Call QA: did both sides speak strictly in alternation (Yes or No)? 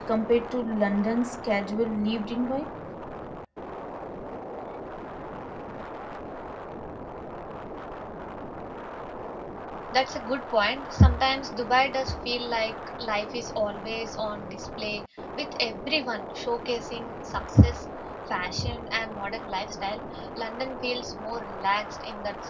Yes